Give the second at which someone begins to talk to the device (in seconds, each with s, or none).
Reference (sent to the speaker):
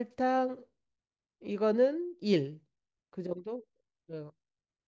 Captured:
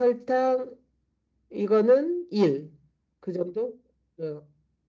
none